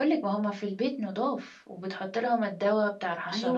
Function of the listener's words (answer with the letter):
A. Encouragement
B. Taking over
B